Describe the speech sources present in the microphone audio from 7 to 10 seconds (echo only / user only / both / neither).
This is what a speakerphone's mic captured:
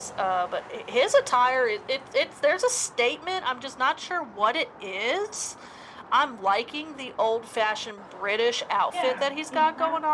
both